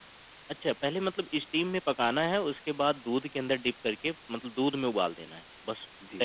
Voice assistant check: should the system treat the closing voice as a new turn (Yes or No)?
Yes